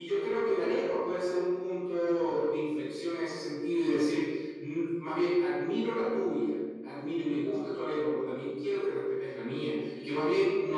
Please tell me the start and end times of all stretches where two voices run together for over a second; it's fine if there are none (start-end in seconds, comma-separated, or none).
none